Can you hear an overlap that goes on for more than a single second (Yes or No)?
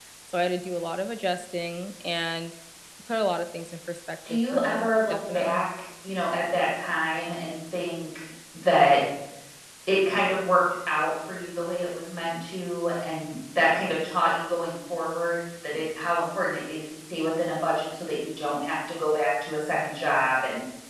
Yes